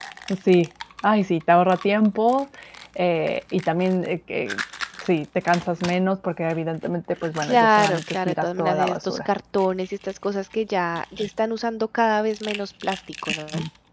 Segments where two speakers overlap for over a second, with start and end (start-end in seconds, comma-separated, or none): 7.4-9.3